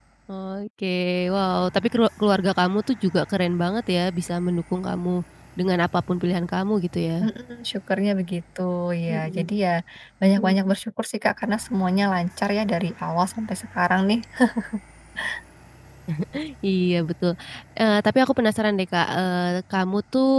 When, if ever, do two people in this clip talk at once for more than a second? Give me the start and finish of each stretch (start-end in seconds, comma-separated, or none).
none